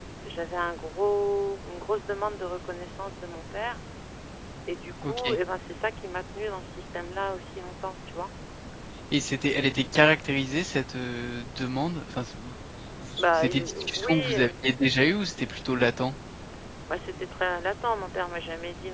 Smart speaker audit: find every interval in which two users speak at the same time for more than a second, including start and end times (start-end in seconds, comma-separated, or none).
13.2-14.9